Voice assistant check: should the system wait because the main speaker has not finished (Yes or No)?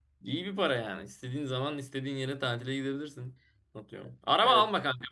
Yes